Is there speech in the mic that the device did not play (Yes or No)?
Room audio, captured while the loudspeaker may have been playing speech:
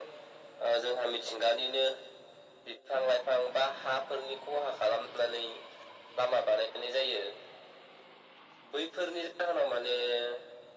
No